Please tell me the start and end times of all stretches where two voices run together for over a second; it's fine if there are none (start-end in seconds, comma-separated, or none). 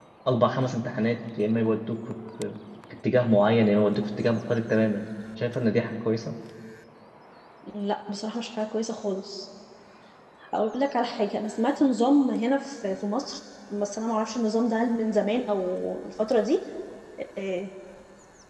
none